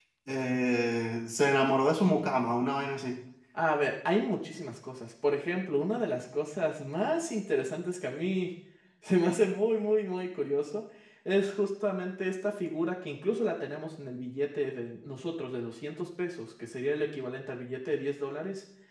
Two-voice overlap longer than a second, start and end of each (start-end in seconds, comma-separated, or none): none